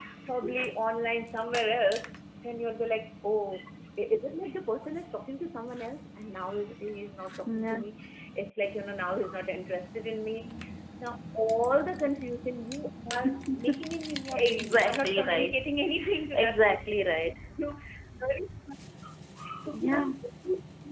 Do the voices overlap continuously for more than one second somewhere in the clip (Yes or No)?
Yes